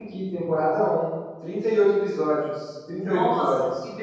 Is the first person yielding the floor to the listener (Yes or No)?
Yes